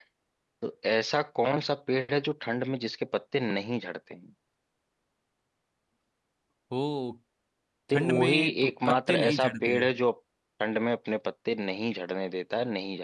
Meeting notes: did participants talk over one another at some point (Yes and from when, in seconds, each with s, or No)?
Yes, from 7.9 s